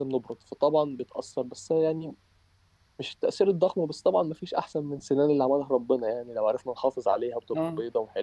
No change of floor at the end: Yes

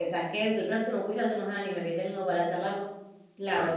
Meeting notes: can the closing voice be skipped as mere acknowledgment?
No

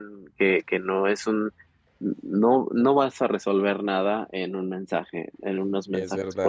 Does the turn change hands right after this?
No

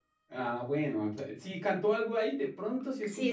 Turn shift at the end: Yes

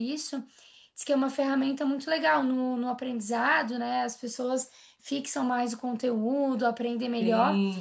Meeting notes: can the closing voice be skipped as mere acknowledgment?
Yes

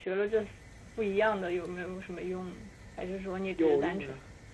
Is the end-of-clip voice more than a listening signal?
Yes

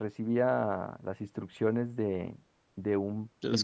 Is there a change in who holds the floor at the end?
No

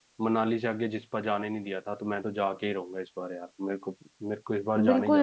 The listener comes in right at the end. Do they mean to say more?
Yes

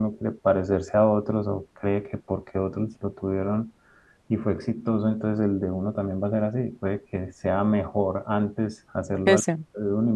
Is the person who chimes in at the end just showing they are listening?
Yes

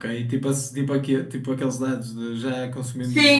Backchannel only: No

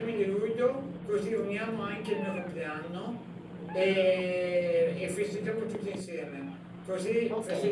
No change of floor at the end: No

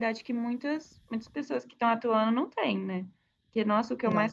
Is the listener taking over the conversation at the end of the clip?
No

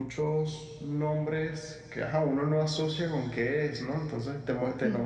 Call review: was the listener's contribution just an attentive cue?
Yes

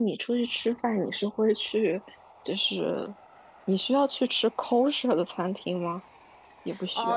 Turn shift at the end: Yes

